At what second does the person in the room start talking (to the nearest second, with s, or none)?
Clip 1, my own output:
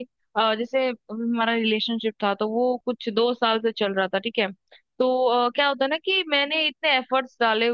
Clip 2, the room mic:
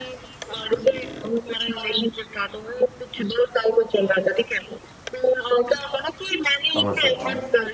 7 s